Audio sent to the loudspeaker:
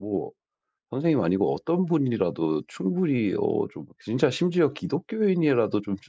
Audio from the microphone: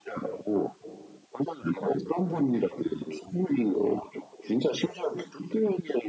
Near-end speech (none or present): none